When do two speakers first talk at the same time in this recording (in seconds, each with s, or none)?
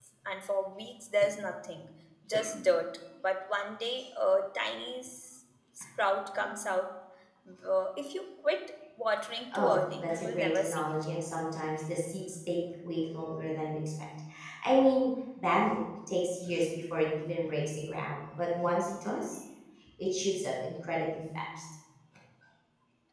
9.5 s